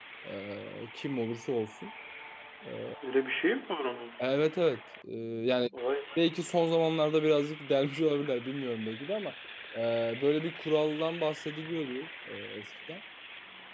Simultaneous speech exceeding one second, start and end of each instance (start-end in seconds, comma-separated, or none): none